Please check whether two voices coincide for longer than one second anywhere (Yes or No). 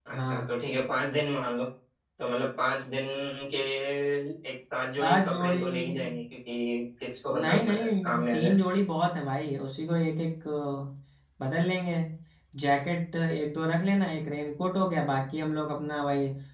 Yes